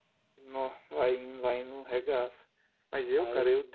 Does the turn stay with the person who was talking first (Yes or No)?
Yes